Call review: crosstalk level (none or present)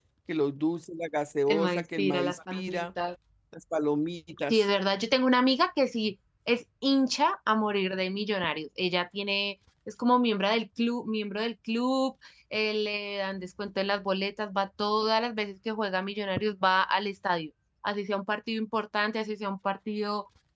present